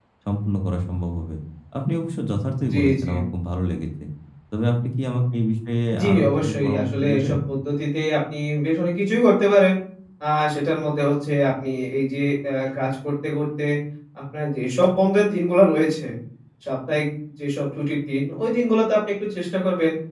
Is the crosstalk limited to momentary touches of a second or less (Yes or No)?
No